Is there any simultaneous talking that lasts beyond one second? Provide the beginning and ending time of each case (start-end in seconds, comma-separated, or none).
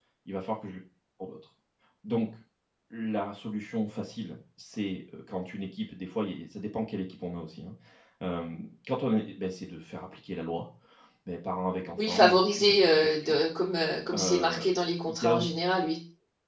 12.0-13.3